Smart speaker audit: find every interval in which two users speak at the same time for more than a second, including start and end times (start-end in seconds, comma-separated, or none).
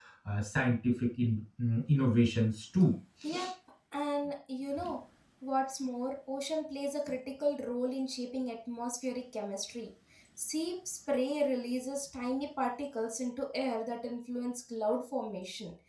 none